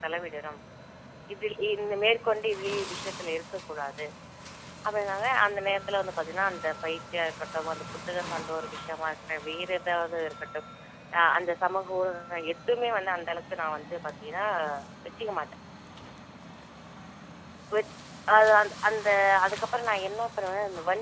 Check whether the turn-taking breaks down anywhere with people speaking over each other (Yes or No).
No